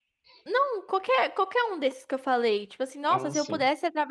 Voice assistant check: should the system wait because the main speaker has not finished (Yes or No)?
Yes